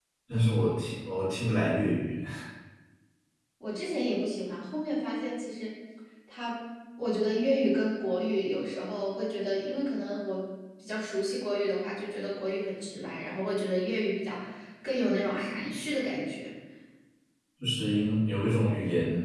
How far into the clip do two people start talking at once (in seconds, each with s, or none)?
none